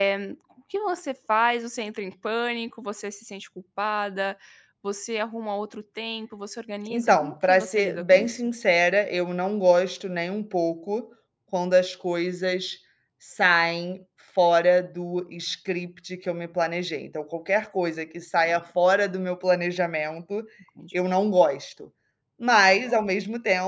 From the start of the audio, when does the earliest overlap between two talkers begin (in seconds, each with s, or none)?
6.9 s